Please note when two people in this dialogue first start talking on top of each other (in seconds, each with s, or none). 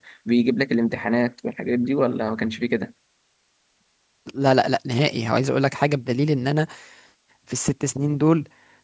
none